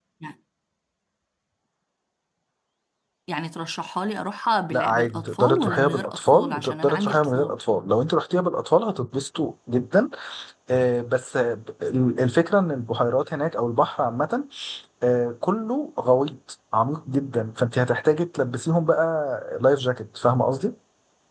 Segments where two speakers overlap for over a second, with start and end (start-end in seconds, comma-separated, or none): 4.7-7.6